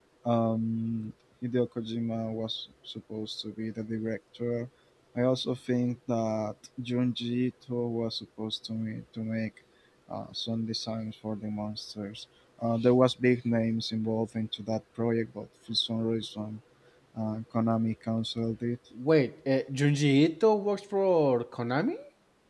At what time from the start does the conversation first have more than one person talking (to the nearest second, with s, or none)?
none